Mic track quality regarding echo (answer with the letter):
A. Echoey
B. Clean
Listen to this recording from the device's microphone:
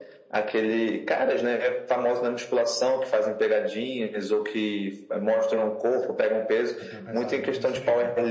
A